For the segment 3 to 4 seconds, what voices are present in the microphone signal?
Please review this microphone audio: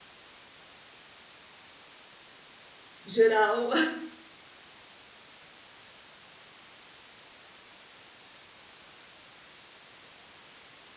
user only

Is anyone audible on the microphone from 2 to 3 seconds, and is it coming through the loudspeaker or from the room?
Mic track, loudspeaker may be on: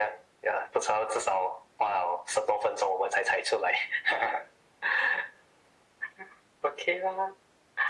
echo only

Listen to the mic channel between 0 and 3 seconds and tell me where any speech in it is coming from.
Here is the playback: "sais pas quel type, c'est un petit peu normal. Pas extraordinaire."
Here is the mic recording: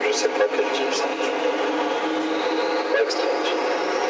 echo only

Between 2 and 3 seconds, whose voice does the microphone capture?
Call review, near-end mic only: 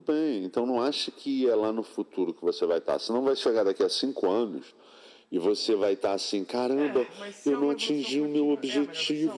echo only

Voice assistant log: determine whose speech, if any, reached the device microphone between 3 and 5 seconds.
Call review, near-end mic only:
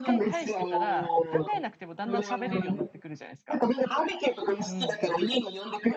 both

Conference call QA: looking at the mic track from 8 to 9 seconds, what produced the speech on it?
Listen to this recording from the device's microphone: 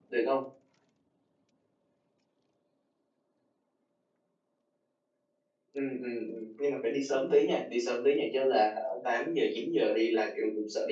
user only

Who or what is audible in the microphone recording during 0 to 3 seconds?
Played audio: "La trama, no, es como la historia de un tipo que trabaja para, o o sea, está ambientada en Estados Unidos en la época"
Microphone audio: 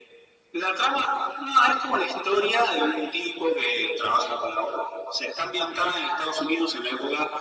echo only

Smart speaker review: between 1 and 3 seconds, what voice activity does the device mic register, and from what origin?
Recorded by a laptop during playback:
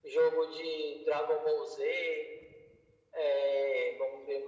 echo only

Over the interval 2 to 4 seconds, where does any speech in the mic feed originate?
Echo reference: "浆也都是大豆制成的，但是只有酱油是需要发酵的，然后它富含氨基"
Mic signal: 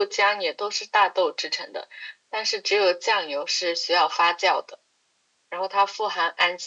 echo only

